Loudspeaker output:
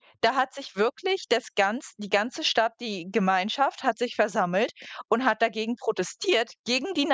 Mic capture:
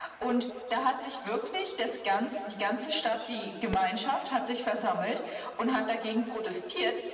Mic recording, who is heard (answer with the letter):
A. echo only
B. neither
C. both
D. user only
A